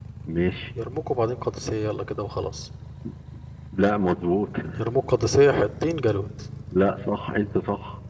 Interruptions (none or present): none